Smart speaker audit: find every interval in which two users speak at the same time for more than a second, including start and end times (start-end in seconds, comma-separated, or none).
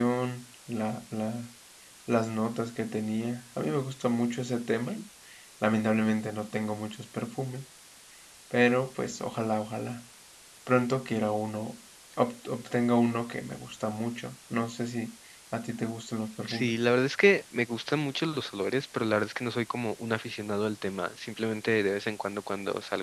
none